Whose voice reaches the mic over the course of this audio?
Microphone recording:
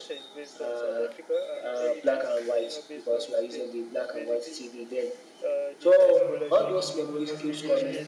both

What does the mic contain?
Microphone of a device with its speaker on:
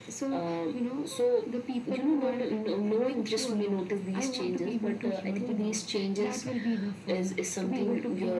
echo only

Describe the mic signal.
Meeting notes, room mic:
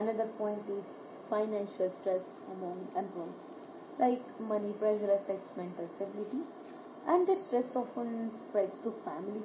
echo only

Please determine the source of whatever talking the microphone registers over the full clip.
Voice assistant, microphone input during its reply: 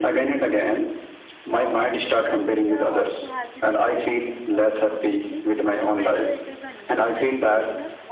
both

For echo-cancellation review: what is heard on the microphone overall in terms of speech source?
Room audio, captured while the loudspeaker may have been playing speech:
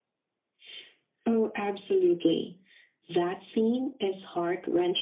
echo only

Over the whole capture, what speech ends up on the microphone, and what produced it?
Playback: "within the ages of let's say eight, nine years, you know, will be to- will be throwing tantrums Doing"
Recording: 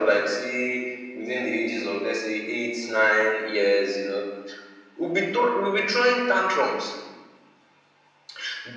echo only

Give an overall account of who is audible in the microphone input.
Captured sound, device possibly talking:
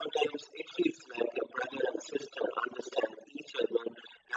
echo only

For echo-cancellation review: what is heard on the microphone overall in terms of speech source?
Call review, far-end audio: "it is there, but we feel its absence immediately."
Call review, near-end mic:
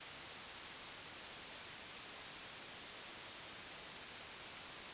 neither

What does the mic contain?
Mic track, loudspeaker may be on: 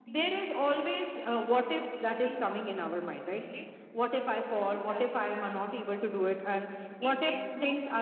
both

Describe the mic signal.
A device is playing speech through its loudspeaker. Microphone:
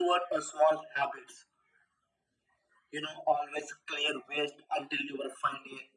echo only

